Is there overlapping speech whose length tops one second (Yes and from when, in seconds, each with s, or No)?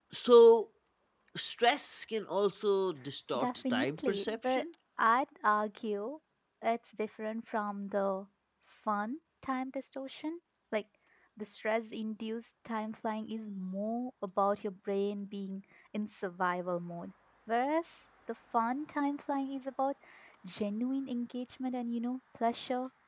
Yes, from 3.3 s